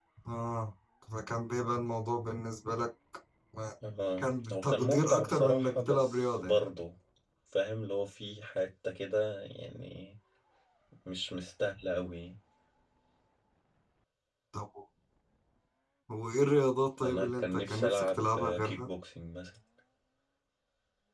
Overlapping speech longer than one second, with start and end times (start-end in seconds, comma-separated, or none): 4.2-6.6, 17.0-18.9